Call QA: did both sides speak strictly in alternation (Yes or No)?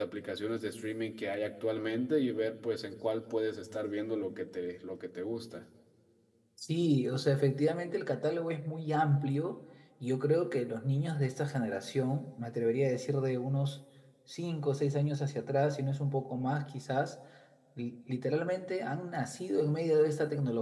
Yes